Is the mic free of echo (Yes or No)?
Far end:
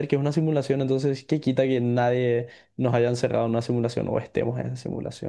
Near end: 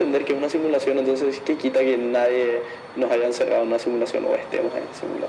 No